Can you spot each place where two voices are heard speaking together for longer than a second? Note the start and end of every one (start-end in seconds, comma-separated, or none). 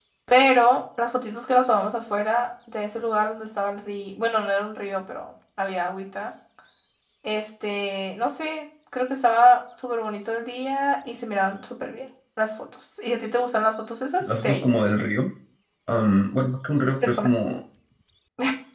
none